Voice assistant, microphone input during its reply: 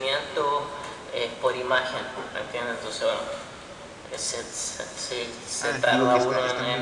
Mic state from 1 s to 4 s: echo only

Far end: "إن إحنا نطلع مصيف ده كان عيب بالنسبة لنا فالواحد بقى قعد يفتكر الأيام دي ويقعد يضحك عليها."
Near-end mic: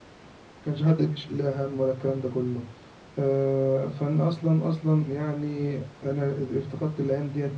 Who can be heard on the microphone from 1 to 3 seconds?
user only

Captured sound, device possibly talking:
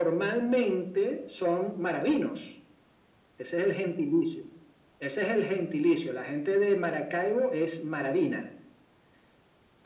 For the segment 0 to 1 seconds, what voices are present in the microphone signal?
echo only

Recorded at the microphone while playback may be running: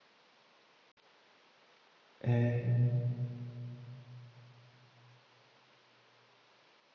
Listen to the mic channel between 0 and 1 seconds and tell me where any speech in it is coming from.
neither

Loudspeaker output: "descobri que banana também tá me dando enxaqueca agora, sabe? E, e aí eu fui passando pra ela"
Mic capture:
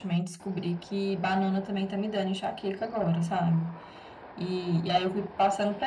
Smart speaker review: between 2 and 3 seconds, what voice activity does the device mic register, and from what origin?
echo only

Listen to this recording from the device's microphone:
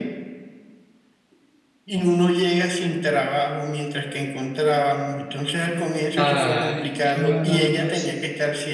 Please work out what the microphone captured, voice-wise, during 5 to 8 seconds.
both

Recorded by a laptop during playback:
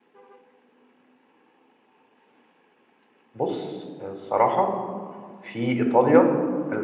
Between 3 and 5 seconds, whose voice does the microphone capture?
user only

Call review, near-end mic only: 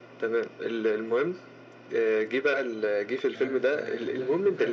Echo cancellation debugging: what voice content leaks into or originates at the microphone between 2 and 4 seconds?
both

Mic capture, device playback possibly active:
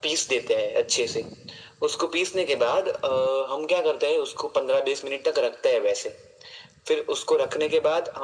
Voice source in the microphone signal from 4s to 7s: echo only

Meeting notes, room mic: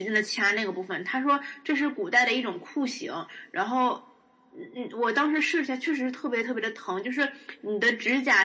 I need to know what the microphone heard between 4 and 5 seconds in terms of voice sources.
echo only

